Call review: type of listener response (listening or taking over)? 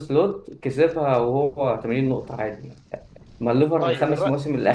listening